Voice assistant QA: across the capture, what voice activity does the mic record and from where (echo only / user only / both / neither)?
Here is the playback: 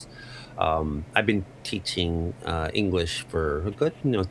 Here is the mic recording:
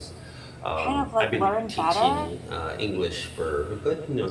both